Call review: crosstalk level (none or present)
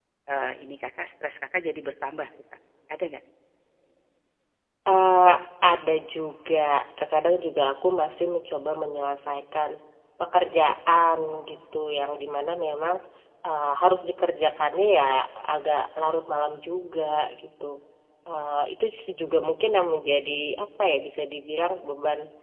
none